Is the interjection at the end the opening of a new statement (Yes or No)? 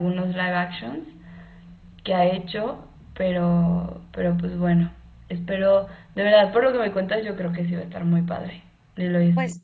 Yes